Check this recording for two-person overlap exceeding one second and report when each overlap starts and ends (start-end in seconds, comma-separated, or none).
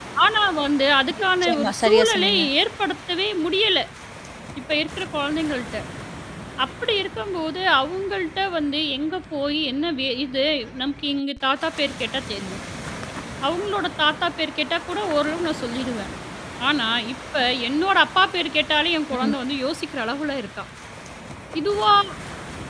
1.2-2.4